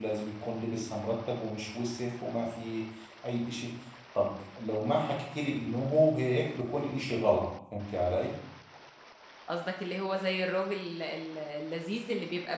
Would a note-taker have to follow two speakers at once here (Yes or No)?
No